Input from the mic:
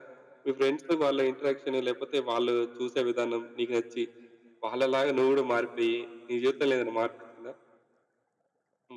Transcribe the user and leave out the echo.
none

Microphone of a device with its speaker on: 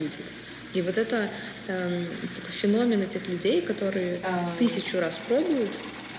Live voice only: эм,

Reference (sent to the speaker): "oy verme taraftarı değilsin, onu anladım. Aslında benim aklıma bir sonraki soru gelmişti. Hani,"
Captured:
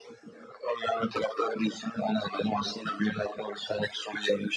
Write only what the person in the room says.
none

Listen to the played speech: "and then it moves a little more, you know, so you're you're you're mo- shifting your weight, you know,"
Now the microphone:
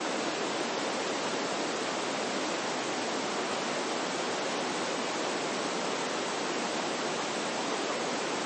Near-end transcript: none

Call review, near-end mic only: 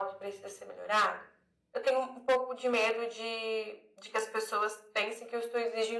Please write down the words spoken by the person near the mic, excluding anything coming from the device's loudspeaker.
none

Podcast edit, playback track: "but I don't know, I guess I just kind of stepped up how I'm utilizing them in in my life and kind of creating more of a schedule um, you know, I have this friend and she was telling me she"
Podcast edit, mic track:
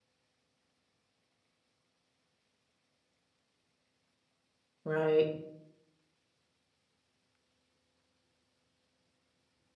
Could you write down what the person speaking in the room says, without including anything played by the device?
Right.

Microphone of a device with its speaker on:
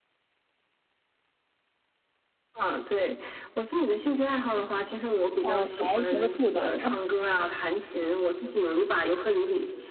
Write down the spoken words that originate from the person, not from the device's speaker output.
哦，反而成了负担了。

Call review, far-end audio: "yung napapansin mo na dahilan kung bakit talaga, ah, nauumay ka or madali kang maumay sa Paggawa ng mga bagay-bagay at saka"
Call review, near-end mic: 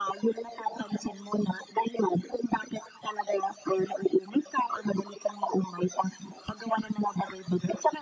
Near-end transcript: none

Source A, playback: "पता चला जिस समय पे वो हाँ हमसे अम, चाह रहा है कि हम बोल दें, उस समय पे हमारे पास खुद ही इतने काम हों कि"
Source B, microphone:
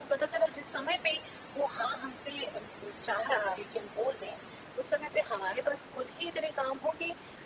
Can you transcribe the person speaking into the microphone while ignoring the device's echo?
none

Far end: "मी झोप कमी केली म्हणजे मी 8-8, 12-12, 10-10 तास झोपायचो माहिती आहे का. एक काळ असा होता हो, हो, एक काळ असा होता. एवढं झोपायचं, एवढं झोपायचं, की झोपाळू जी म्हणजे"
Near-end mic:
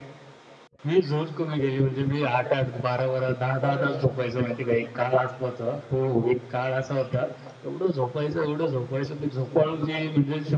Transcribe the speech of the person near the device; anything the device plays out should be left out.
बरोबर.

